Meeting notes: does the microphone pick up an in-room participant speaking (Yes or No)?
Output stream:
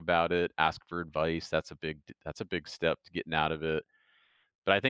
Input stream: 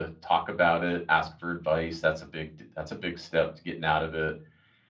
No